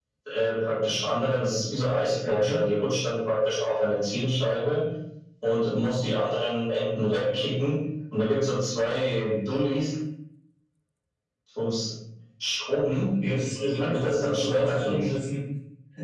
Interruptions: present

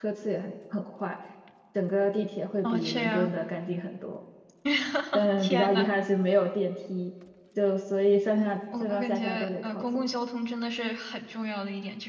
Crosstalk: present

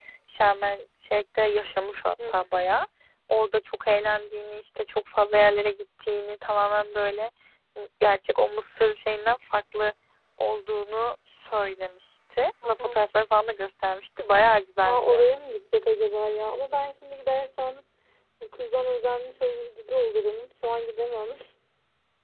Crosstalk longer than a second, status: none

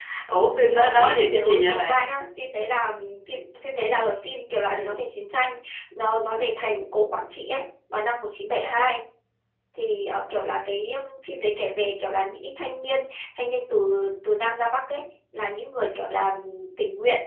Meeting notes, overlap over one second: present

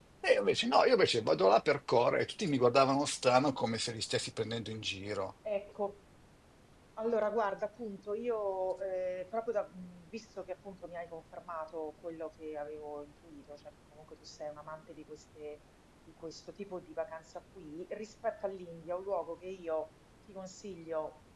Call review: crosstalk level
none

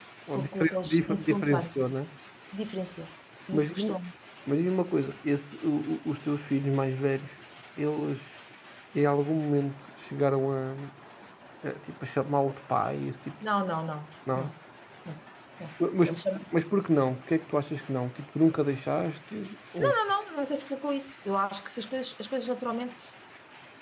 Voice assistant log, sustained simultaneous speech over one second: present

